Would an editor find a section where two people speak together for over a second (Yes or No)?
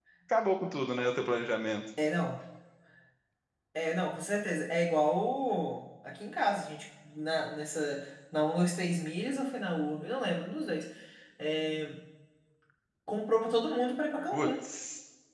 No